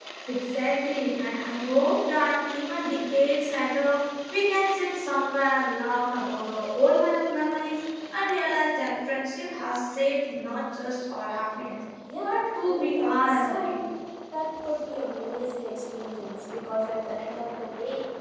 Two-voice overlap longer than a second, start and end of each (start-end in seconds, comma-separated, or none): 12.2-13.8